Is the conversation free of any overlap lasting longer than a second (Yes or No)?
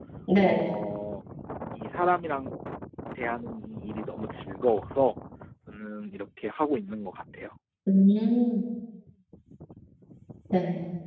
Yes